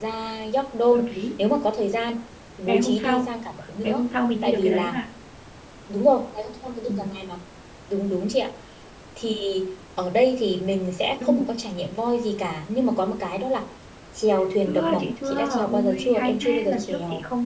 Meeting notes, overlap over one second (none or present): present